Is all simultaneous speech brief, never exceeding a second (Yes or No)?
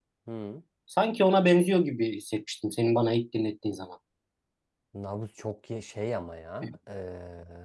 Yes